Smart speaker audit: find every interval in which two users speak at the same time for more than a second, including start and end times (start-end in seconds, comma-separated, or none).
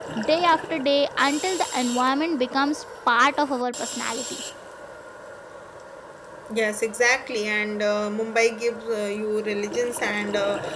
none